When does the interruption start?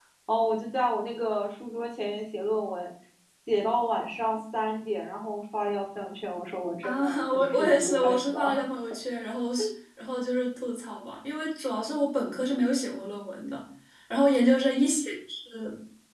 6.8 s

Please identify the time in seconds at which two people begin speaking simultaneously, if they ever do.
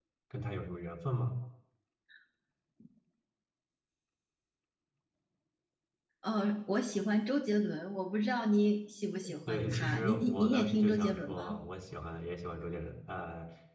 9.2 s

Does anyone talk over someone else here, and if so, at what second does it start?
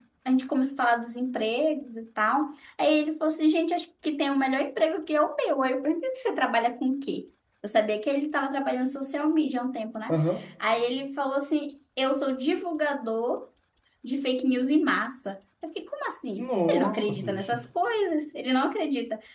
16.4 s

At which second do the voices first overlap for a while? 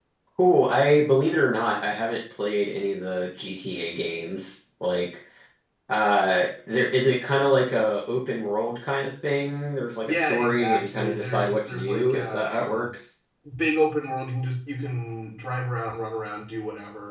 10.0 s

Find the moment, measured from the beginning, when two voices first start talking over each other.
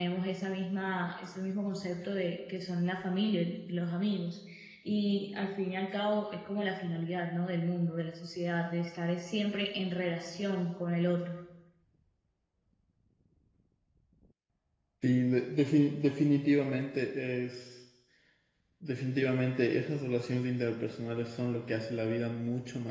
none

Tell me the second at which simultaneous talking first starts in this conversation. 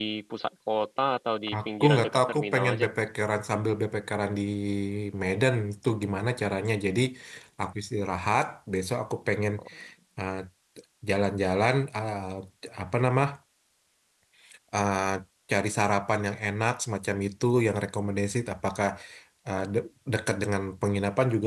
1.5 s

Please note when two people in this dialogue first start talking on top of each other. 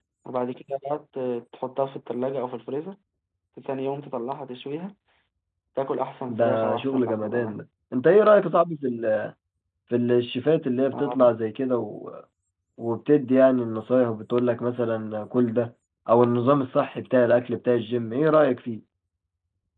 6.3 s

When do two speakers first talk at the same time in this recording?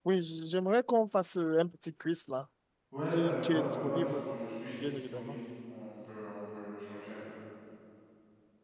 3.1 s

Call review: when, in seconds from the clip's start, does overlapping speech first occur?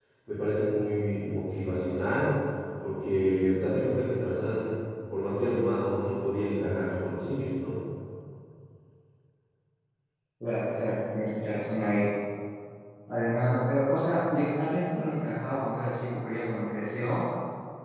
none

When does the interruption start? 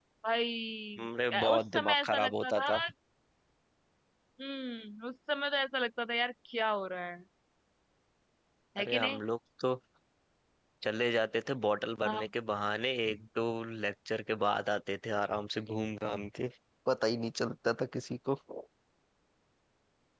1.3 s

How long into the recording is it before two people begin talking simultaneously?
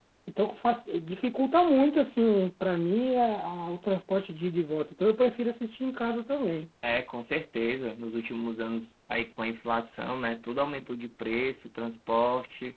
none

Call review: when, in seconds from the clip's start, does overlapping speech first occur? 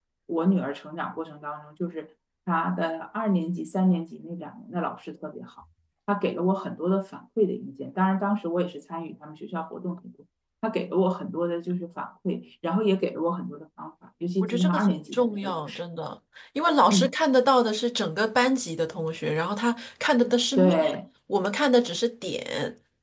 14.4 s

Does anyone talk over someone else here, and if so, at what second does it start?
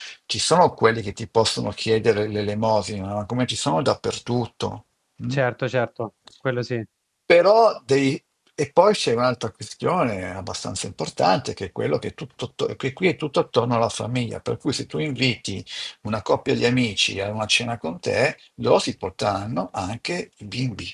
none

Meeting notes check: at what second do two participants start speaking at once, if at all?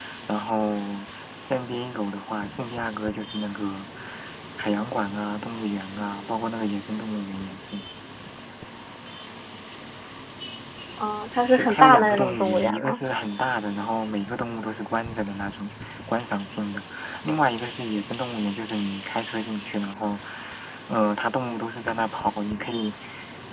11.6 s

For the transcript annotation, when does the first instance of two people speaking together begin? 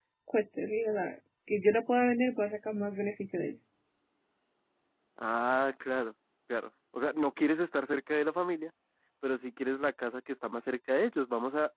none

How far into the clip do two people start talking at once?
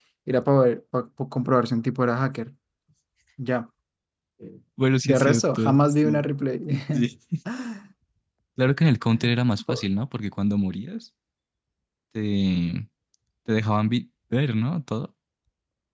5.0 s

